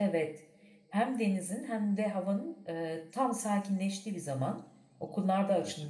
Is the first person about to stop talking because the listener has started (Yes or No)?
No